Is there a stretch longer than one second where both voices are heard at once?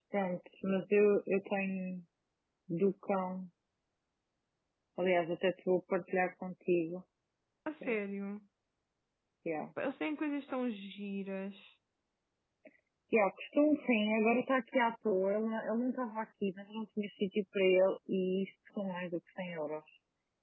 No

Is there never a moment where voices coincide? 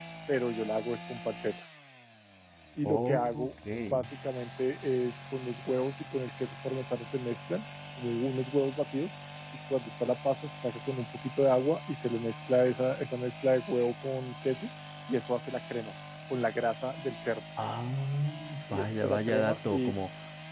No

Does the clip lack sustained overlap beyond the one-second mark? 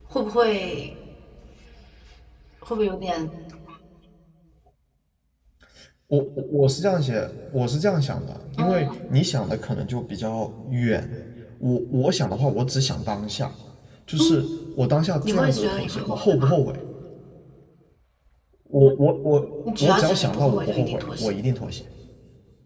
No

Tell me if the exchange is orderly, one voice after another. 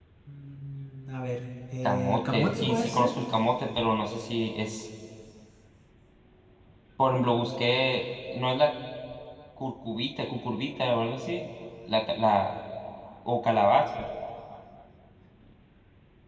No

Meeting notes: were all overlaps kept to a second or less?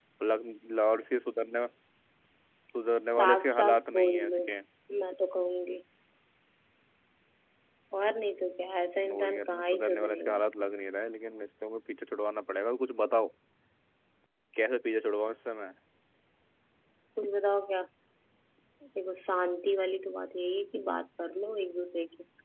No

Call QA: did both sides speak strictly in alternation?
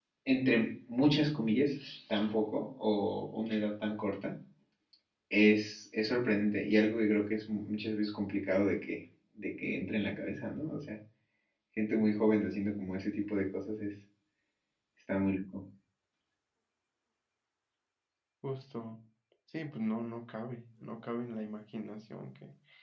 Yes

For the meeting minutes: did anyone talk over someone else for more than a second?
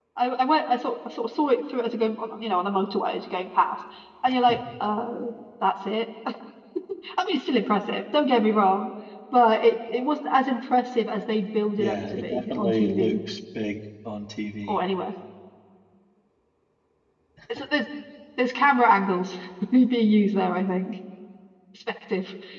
Yes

